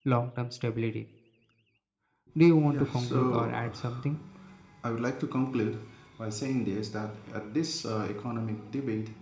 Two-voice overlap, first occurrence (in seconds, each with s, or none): 2.7 s